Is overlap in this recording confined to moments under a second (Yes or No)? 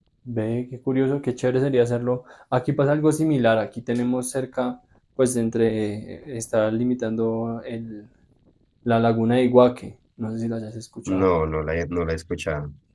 Yes